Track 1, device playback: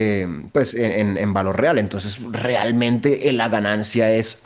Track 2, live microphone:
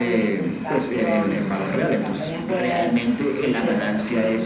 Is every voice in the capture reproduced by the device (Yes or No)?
No